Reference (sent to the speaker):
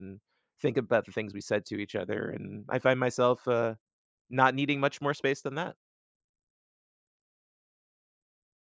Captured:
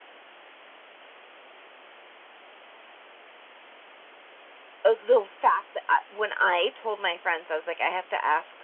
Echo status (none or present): none